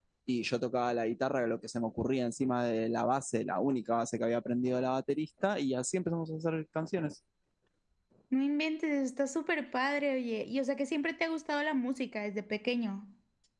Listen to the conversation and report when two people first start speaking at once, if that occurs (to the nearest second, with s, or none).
none